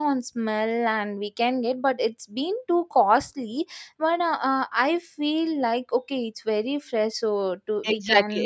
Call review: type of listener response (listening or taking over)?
taking over